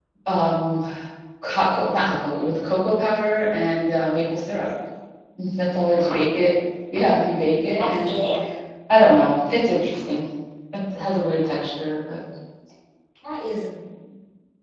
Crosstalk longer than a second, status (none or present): none